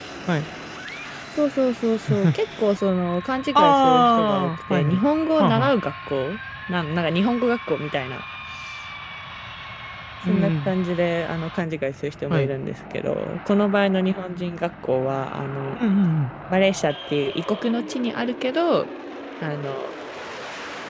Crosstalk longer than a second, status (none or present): present